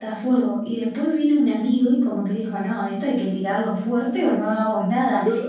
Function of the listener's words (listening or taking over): listening